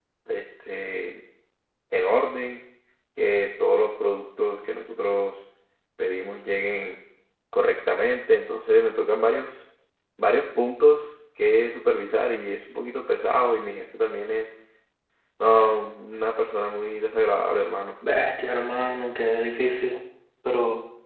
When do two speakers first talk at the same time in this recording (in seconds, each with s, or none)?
none